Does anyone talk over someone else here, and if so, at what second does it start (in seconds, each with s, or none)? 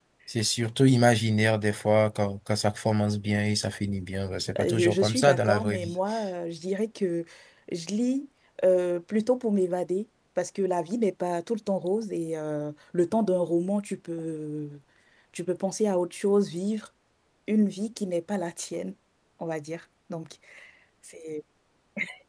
4.5 s